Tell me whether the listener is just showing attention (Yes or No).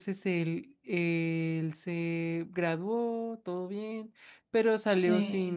Yes